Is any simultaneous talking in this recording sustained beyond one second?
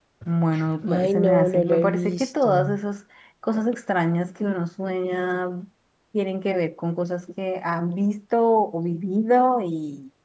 Yes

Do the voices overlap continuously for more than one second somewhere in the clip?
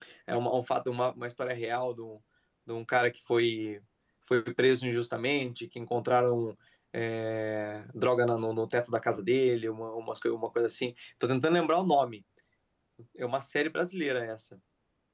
No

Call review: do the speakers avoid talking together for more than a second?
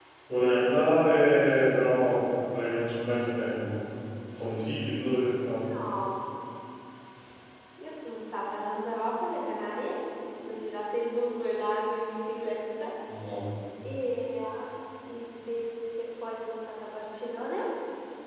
Yes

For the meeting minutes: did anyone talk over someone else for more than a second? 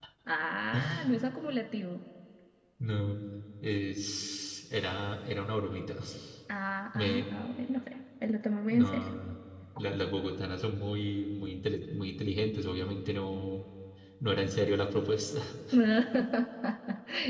No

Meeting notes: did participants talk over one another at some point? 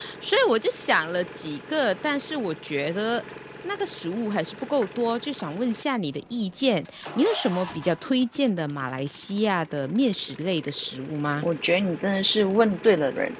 No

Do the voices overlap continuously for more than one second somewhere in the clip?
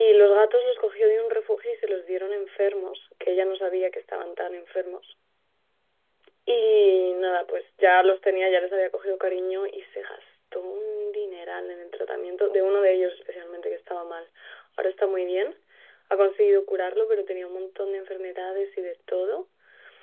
No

